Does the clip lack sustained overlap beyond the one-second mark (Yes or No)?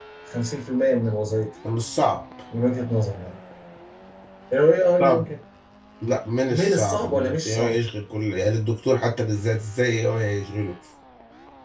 No